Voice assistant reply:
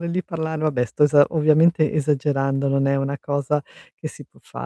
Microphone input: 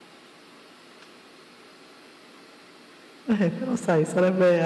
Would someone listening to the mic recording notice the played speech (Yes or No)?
No